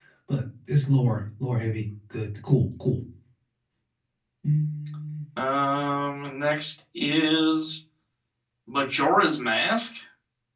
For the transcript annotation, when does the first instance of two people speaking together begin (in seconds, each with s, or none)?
none